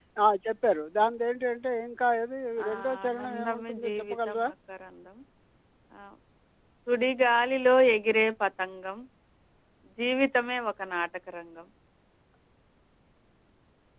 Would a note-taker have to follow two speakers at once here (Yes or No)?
Yes